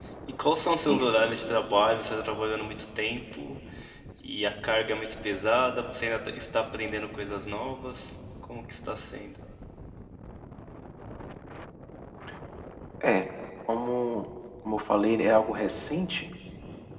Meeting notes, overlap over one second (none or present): none